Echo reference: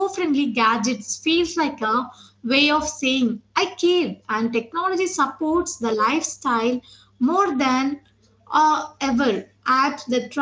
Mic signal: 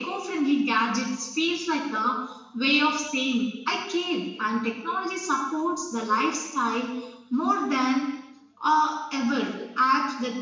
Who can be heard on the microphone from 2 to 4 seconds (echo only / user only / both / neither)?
echo only